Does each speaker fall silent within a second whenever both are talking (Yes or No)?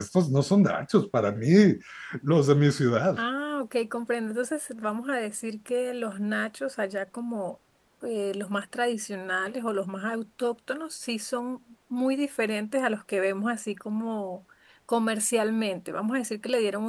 Yes